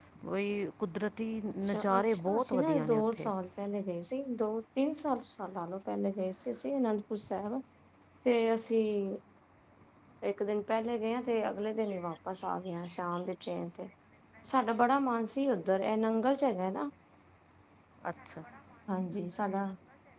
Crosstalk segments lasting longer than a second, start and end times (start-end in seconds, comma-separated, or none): 1.6-3.3